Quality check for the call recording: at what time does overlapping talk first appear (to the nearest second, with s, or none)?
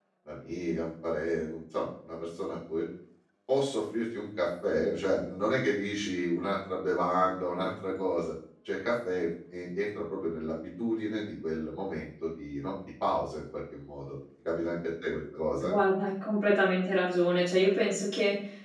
none